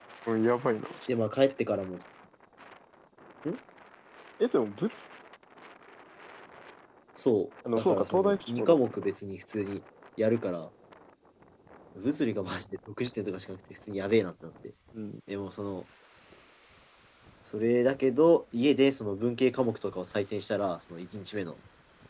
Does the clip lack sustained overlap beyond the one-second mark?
No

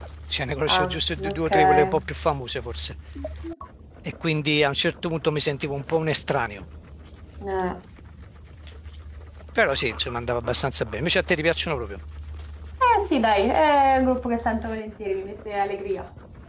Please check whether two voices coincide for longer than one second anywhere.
Yes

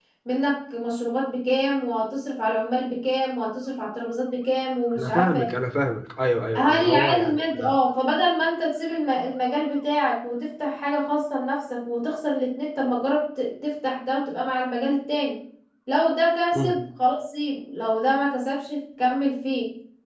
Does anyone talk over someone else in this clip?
Yes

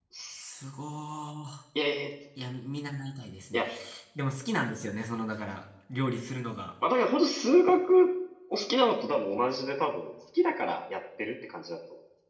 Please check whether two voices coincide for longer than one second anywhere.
No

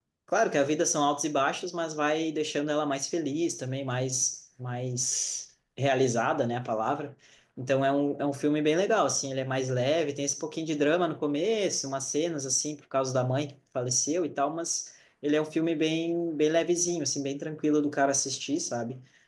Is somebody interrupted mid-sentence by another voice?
No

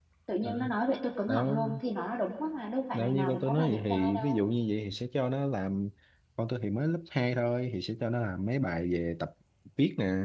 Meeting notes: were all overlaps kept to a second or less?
No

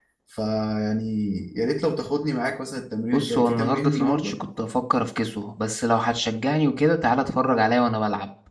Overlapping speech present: Yes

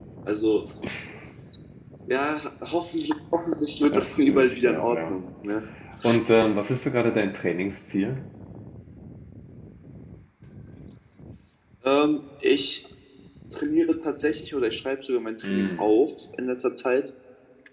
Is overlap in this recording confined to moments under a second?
No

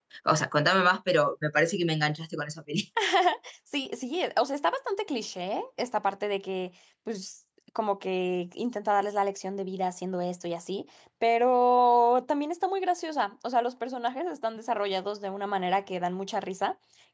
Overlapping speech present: No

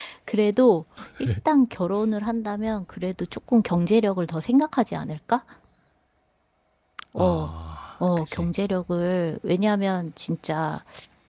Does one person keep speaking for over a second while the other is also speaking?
No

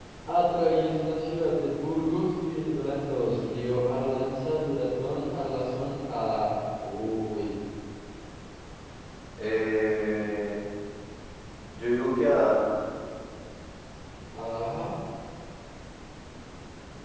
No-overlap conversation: Yes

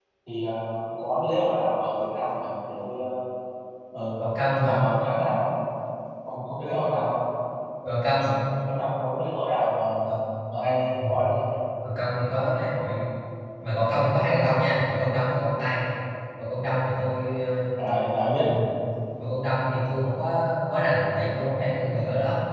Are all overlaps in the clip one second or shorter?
Yes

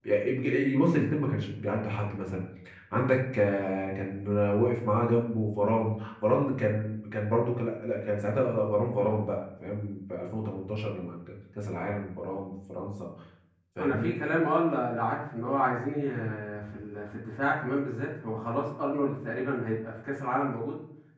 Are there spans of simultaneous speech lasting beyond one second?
No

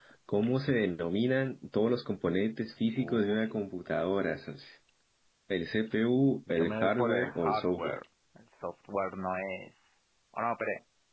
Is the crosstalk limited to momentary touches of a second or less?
No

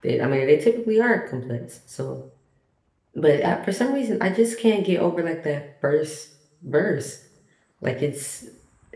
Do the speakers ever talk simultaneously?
No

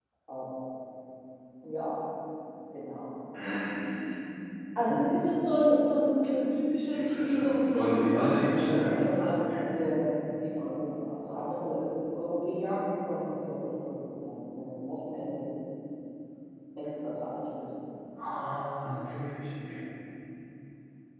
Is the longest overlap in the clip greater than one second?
Yes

